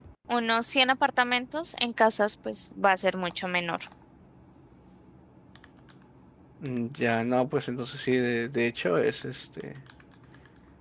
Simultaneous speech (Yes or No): No